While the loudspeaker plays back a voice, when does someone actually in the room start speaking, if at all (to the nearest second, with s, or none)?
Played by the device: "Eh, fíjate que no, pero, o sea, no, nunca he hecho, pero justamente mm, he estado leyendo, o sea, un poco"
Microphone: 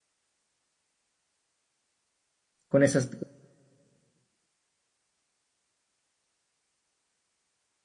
3 s